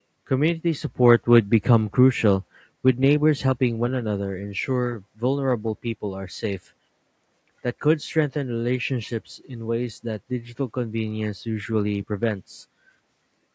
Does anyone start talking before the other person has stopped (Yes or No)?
No